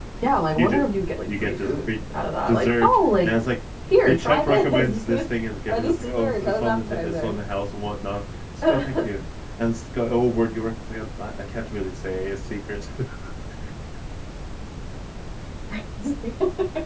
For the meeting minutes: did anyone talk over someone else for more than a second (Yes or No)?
Yes